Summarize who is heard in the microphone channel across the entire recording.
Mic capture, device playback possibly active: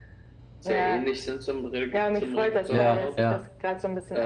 both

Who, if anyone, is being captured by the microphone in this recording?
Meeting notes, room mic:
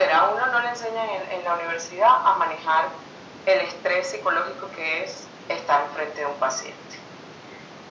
echo only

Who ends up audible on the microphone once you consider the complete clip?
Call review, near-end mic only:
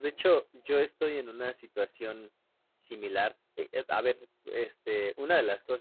user only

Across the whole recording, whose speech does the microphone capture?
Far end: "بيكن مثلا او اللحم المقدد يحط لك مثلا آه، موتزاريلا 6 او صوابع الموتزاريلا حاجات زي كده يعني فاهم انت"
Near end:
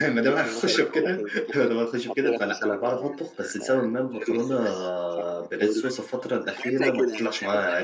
both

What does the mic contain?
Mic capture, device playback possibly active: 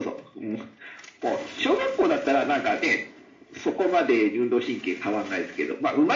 echo only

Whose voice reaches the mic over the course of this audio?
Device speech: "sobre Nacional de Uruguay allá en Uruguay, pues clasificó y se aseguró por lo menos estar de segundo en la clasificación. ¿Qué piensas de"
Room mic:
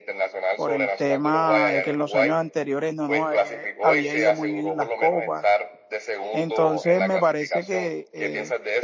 both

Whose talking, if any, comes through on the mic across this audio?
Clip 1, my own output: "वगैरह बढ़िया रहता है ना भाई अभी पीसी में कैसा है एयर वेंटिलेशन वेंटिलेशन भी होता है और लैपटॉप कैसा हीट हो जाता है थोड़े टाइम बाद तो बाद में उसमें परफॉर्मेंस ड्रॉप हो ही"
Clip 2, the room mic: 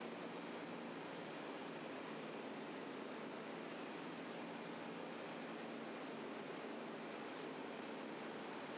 neither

